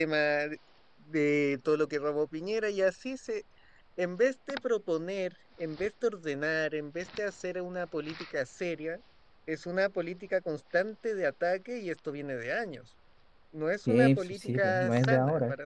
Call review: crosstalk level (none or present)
present